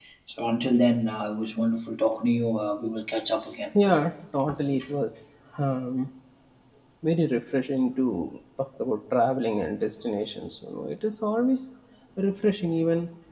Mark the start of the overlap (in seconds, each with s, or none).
none